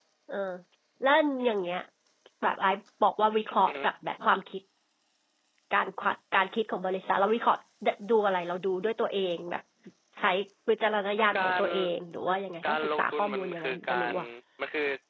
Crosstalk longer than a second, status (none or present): present